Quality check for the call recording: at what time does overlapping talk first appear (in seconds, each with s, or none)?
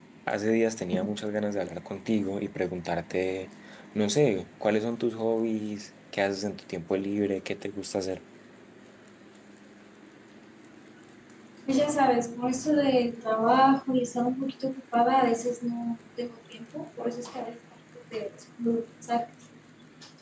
none